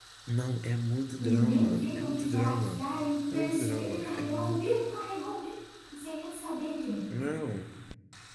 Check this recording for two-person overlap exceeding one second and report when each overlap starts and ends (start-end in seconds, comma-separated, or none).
1.2-2.8, 3.3-4.7